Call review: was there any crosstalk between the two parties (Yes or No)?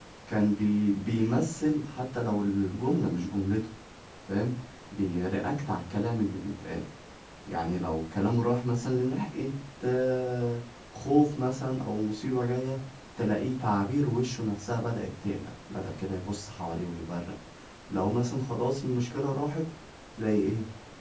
No